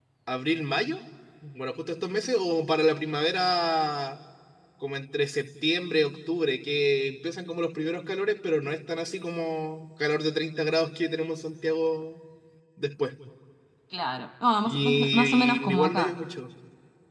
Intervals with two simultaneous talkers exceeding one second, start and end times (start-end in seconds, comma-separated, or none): 14.6-16.2